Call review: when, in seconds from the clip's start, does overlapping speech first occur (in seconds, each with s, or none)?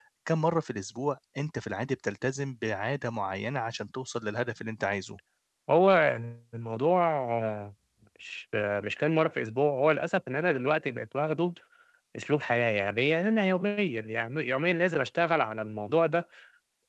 none